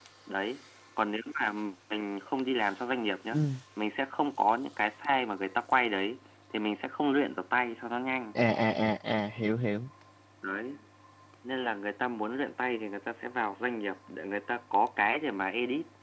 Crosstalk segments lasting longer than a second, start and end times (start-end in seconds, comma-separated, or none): none